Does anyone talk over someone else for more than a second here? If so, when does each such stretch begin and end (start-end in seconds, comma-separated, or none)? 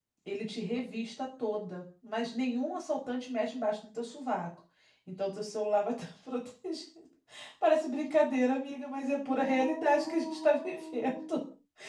9.2-11.4